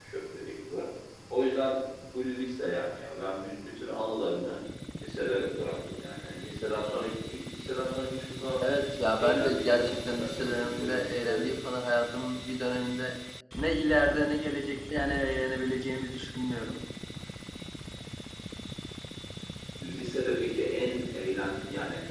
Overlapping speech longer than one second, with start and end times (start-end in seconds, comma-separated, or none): 9.2-11.4